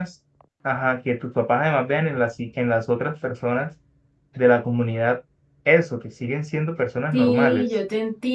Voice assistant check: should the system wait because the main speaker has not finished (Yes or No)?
No